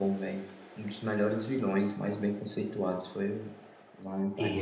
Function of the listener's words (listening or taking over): taking over